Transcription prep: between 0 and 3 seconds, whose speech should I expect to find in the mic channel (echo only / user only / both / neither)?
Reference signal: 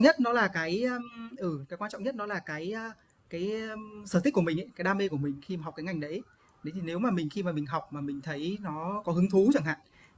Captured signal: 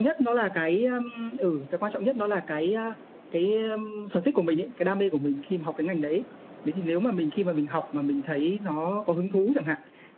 echo only